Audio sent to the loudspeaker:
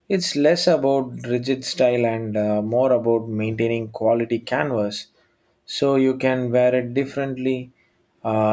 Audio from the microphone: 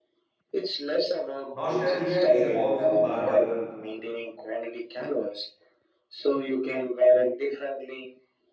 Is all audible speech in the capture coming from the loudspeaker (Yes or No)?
No